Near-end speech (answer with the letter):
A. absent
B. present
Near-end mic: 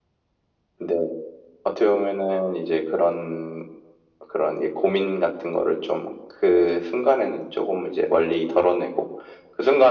A